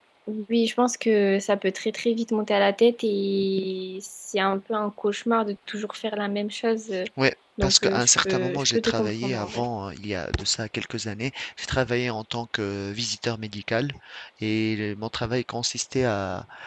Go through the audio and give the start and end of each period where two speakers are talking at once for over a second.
7.6-9.6

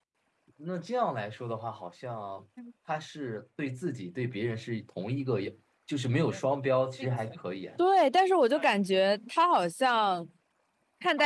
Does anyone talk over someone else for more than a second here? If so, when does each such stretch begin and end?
none

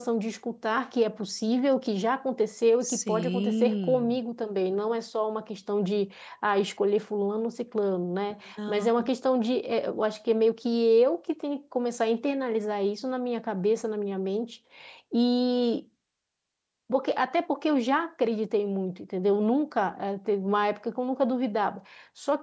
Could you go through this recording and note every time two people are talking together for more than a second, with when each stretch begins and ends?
2.8-4.2

